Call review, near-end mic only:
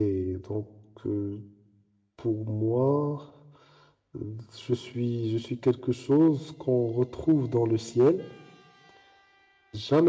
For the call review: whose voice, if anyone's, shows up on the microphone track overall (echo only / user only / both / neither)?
user only